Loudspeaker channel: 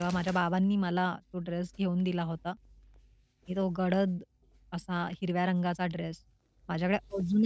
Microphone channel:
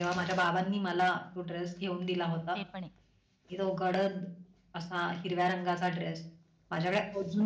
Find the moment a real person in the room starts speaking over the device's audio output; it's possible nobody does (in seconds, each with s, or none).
2.5 s